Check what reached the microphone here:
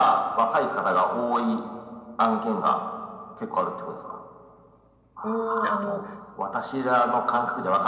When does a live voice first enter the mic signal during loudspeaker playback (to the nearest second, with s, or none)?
5 s